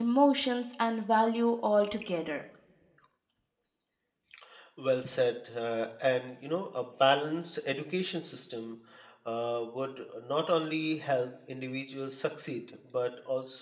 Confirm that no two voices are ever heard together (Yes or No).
Yes